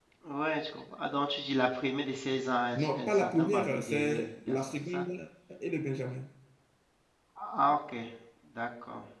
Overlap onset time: 3 s

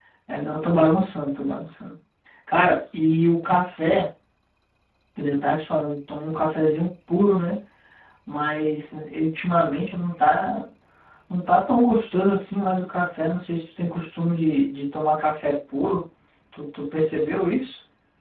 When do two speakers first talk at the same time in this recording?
none

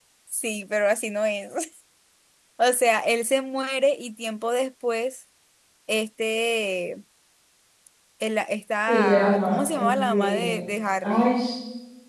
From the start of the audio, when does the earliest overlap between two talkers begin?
9 s

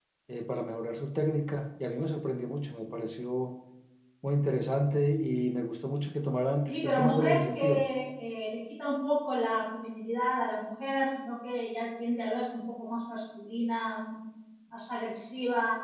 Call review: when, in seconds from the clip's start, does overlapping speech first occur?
7 s

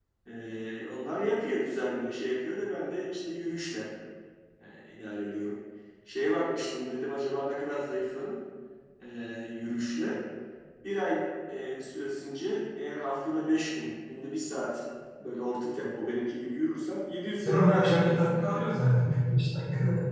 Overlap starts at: 17 s

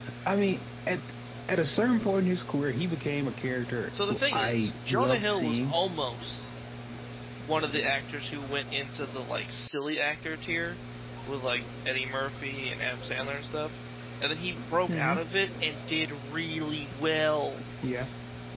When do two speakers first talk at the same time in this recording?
4 s

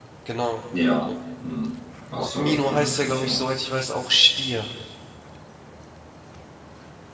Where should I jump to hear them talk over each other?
2 s

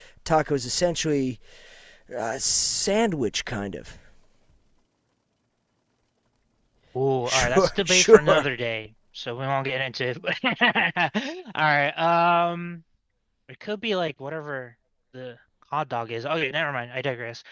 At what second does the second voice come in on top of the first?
7 s

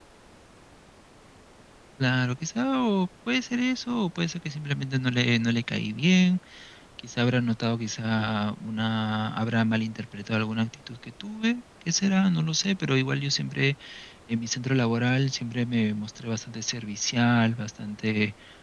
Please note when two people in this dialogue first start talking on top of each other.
none

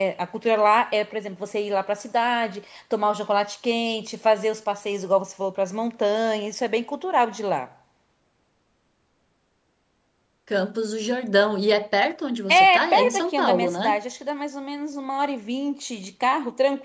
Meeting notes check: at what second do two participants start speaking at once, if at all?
12 s

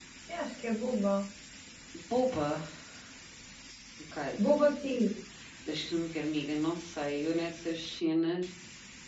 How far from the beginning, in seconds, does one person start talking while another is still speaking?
none

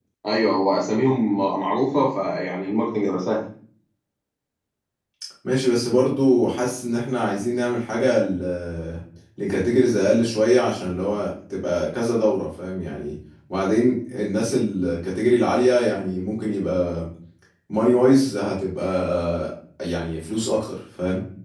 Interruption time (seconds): none

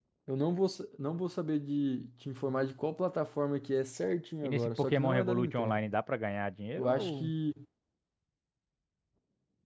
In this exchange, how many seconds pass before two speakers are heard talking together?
4 s

